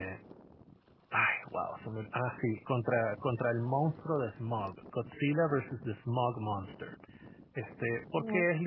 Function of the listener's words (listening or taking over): listening